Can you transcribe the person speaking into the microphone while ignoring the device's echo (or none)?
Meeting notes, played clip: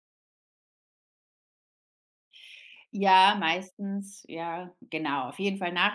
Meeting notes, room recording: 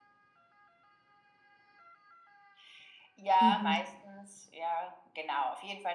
Mhm,